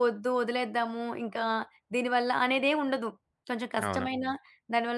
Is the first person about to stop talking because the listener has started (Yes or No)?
No